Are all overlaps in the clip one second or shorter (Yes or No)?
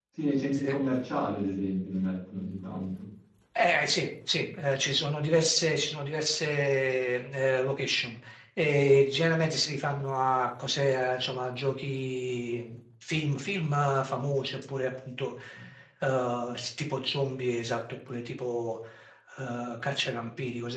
Yes